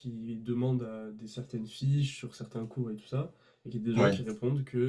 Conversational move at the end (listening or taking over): listening